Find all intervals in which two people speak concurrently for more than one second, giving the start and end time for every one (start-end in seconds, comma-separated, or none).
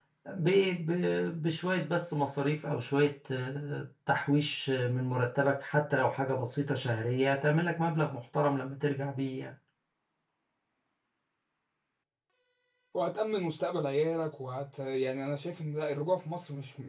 none